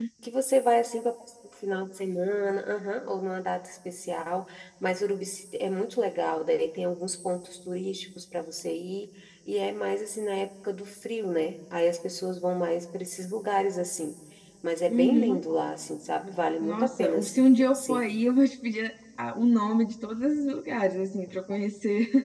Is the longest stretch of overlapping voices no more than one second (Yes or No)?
No